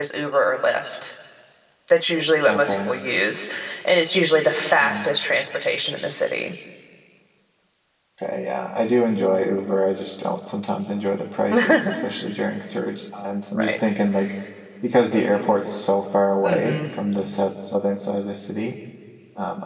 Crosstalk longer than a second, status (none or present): none